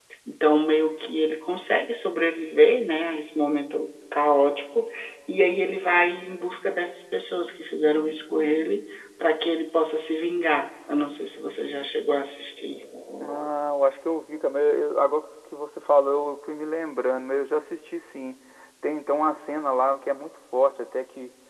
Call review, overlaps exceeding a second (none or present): none